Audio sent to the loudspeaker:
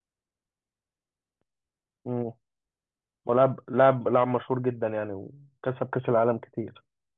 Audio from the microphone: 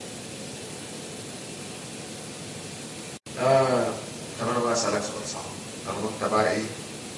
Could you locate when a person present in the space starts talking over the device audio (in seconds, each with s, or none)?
3.4 s